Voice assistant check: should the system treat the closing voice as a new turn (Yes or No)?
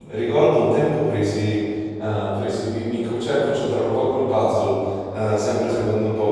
No